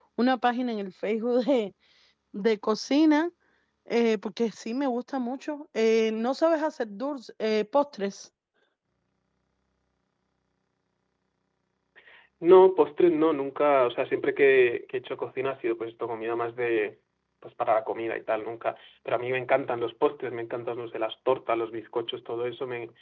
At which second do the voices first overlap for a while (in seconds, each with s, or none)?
none